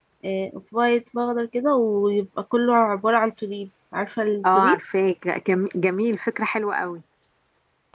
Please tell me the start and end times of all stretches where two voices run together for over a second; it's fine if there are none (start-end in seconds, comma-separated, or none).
none